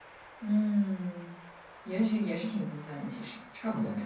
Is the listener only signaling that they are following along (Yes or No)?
No